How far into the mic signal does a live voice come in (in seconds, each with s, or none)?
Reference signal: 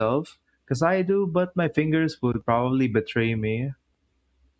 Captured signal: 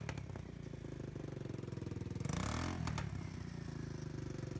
none